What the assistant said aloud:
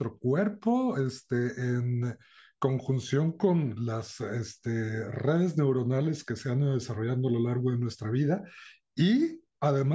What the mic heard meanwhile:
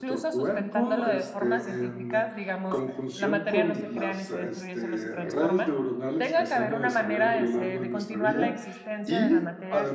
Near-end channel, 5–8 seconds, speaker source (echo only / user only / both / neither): both